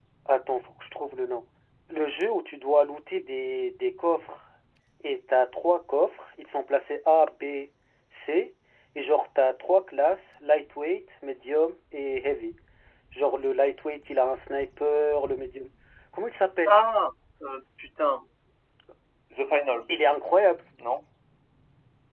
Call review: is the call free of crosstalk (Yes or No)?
Yes